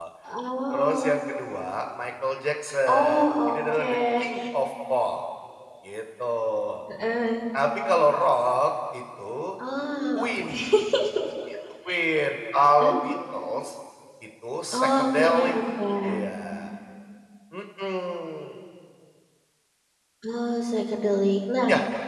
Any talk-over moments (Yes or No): Yes